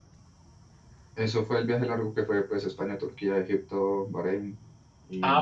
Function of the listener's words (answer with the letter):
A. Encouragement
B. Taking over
B